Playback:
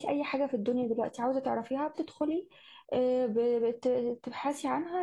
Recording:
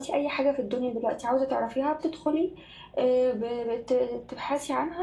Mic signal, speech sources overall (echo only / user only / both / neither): echo only